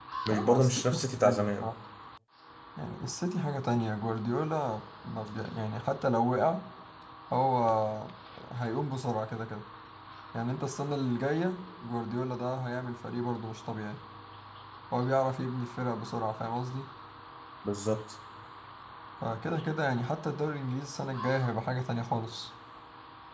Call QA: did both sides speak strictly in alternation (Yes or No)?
No